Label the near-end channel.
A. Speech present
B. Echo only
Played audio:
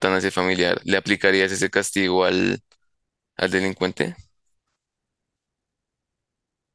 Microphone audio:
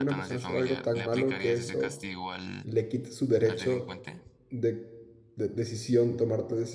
A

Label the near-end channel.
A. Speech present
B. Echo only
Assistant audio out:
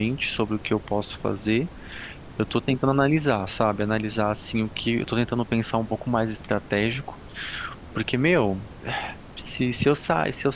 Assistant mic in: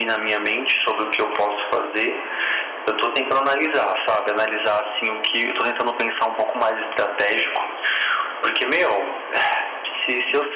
B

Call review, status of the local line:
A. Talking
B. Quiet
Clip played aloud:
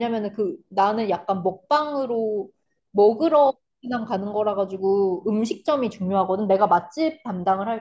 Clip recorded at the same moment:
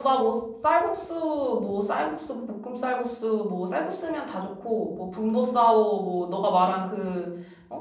A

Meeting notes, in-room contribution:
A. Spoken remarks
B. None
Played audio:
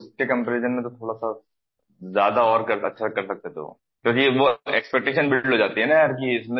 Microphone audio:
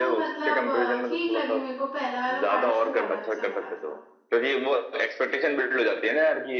A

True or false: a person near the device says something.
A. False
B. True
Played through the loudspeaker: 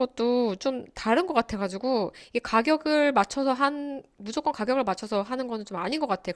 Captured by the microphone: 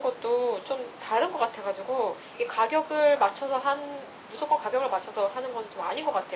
A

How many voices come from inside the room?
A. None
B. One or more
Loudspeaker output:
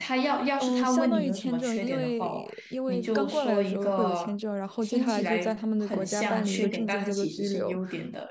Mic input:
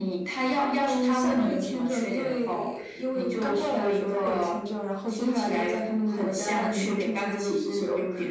A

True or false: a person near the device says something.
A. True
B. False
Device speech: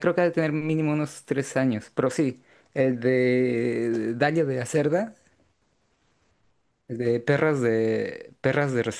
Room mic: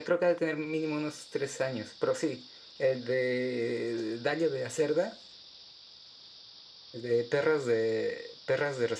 B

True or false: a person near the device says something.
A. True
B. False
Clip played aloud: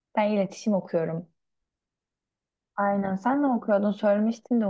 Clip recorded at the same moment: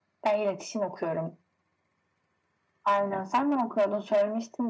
B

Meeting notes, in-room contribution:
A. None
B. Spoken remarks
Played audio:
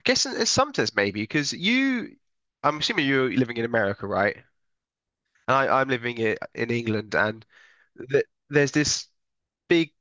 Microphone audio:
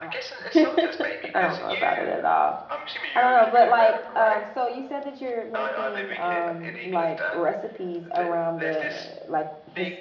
B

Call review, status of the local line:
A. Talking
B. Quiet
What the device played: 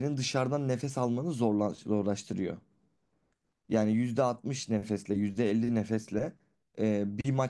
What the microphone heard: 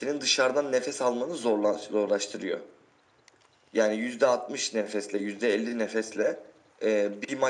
B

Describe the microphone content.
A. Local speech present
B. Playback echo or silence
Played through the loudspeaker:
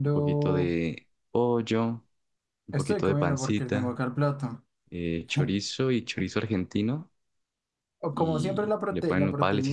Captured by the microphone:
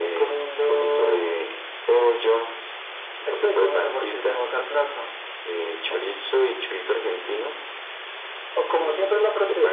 B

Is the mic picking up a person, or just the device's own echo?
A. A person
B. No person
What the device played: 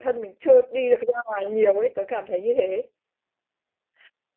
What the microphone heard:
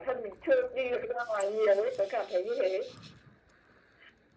B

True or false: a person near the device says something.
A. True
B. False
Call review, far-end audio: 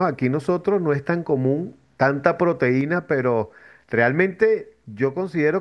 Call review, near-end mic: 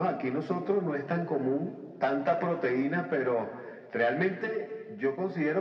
B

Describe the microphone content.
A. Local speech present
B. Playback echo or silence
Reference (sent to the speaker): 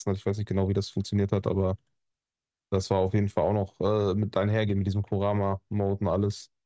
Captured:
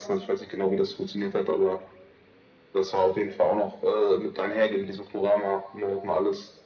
B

